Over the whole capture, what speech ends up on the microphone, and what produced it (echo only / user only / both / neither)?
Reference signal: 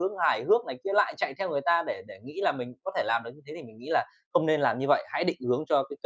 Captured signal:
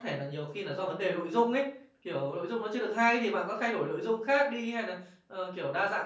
user only